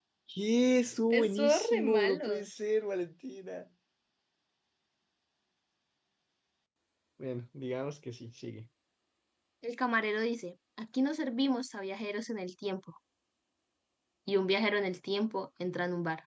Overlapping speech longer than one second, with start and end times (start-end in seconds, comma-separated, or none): 1.1-2.5